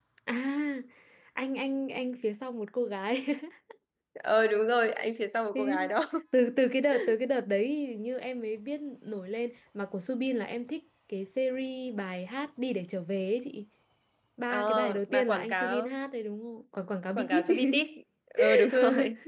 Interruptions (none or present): present